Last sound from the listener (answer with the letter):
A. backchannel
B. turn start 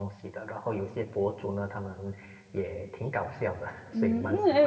B